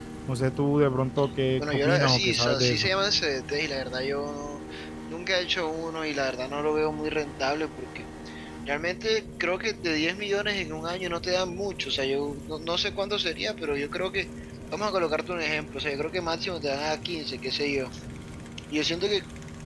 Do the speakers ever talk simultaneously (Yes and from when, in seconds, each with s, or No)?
Yes, from 1.6 s